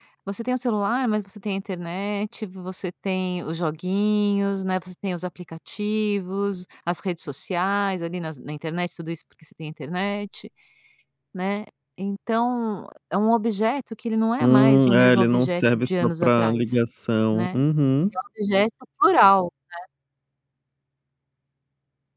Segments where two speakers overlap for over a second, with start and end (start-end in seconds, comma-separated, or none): 14.4-16.8